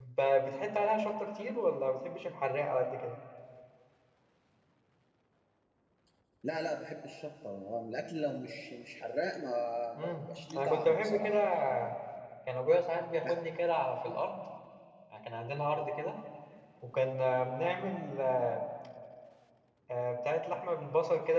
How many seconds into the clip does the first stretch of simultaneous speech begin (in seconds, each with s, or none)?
10.0 s